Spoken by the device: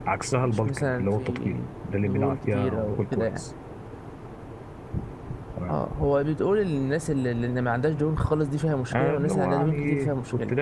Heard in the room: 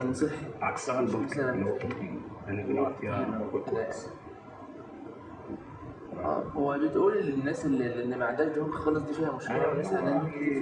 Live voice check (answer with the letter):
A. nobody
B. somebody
A